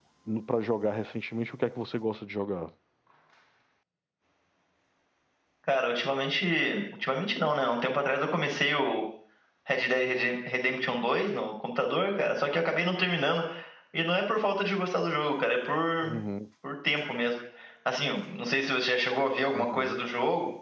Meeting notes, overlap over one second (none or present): none